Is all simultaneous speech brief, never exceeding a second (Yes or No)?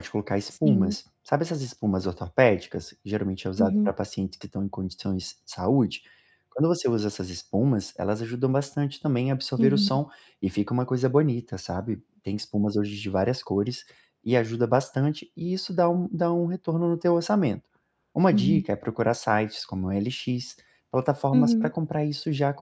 Yes